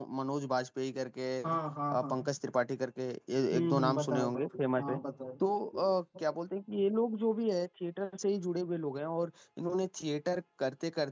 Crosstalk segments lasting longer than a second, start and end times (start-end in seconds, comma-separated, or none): 3.5-5.0